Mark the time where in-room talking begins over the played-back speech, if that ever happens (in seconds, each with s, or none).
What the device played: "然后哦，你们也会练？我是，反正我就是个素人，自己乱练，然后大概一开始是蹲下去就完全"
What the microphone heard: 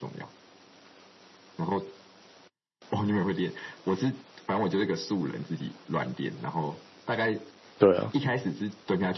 7.8 s